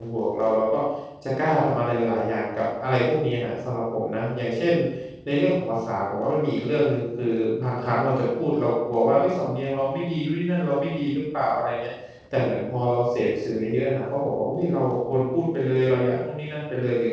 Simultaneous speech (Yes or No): No